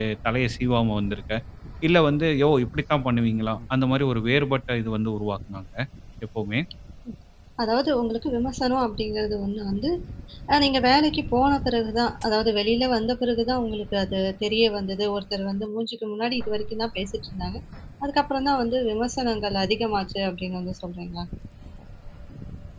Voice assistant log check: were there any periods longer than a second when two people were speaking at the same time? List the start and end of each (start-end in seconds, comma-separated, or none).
none